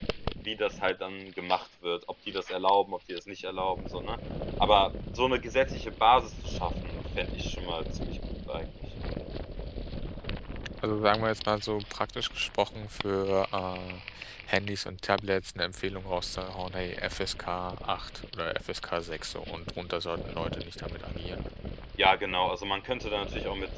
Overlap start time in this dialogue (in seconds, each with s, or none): none